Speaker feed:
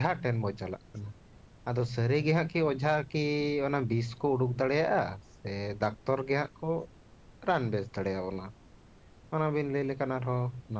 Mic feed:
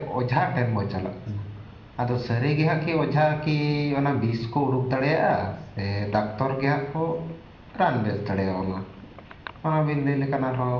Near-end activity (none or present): none